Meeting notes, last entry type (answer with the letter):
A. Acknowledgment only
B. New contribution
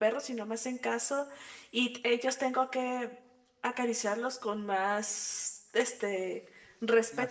A